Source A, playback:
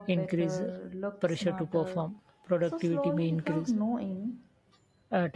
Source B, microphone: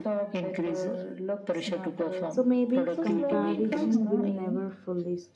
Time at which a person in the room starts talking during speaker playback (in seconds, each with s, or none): 2.3 s